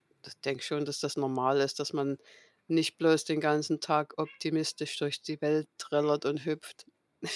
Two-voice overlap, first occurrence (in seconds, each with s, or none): none